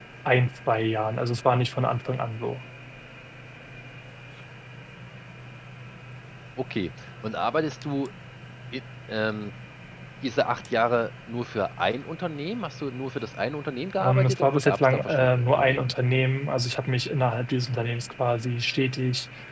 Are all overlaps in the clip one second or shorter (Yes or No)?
No